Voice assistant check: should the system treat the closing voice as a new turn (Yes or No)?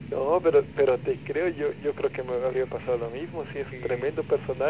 No